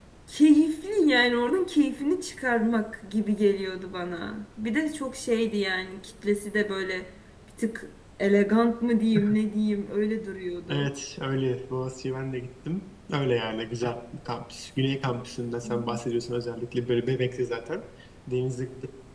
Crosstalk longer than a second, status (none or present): none